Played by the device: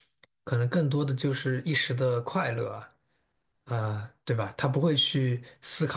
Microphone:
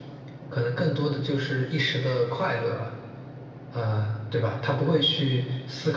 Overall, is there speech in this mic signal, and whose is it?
echo only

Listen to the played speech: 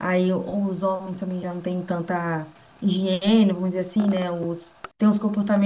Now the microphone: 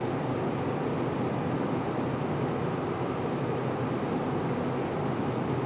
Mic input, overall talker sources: neither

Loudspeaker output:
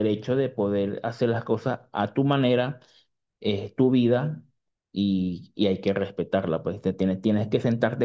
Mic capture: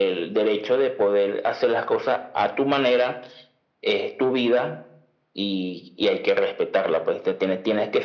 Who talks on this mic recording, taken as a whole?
echo only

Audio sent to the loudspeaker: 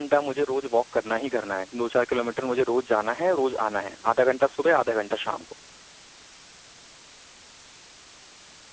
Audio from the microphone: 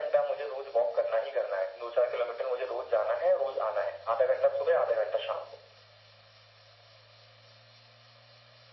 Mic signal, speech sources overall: echo only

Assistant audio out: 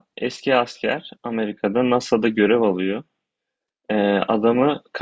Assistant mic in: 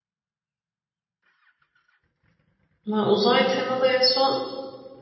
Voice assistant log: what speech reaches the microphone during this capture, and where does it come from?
user only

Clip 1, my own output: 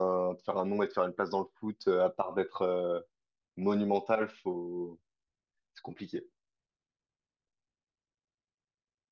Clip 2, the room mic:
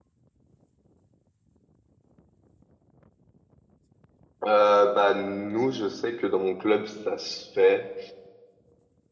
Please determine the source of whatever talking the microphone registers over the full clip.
user only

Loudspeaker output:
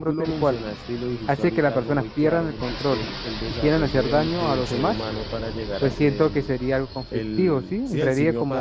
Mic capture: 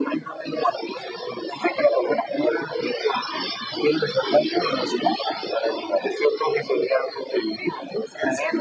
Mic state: echo only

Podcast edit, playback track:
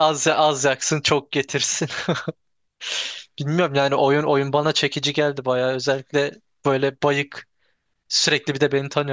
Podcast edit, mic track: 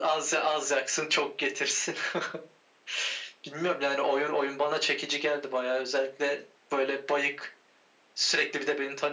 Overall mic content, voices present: echo only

